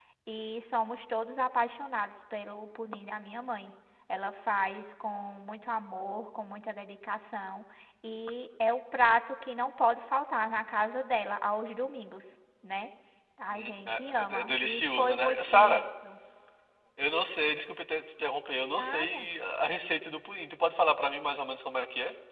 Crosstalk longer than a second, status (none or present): present